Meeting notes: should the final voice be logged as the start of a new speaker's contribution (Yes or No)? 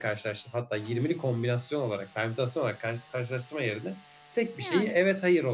No